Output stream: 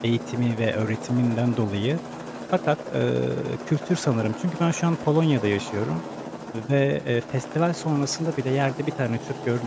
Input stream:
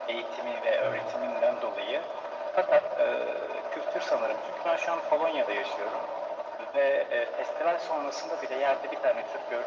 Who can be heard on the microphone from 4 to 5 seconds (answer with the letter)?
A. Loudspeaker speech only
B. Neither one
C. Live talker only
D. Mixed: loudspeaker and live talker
A